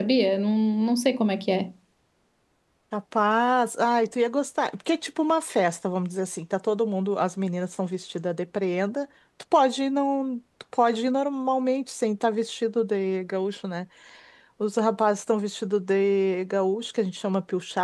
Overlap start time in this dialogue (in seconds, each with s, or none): none